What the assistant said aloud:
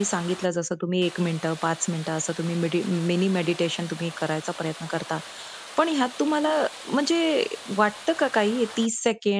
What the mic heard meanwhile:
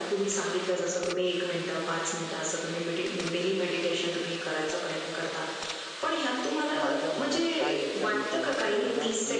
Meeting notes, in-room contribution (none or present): present